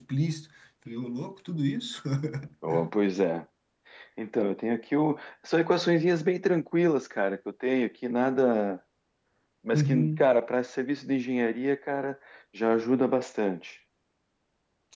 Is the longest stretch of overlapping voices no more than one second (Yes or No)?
Yes